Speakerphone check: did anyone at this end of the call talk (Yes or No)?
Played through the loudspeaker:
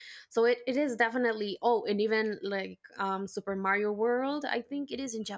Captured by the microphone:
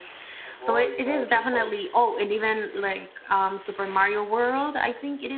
Yes